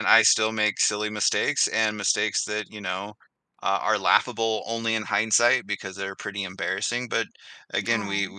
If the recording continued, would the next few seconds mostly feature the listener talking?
No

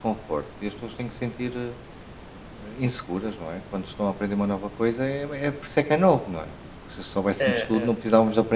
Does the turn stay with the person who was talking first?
Yes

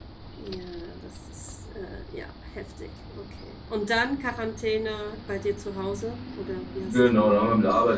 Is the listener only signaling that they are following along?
No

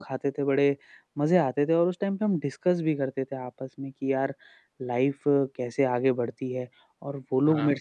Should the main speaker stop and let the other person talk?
No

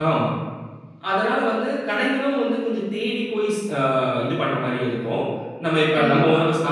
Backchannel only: Yes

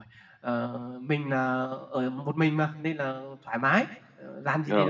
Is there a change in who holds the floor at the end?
No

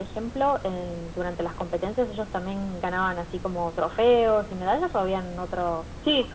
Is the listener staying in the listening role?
No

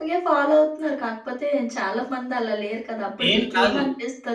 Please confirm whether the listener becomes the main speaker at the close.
No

